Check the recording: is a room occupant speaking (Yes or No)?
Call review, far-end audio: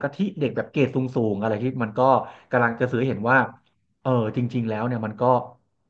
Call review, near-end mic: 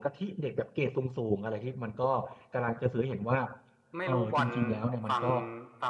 Yes